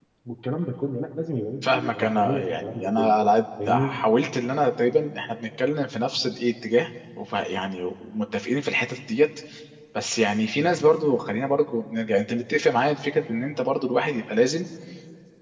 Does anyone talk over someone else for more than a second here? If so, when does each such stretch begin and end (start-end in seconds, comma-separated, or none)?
1.6-3.1